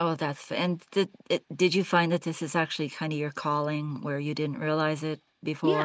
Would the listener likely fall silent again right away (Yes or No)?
No